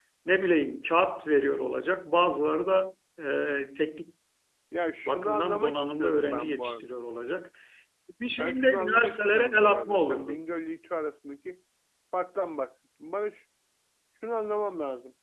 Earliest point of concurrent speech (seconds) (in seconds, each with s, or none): 5.0 s